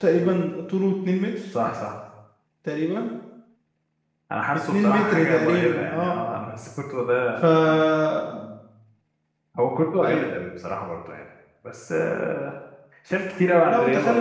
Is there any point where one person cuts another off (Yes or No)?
Yes